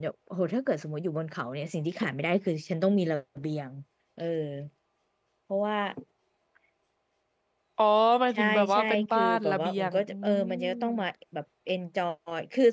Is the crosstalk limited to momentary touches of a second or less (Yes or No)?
No